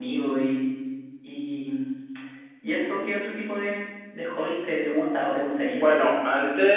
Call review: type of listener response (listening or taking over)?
taking over